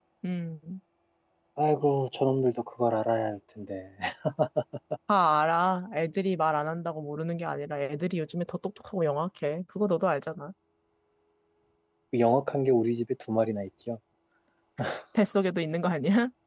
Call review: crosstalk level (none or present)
none